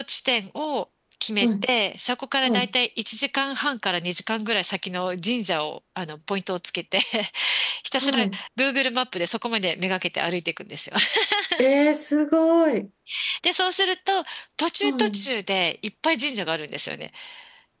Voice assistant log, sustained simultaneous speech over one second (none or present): none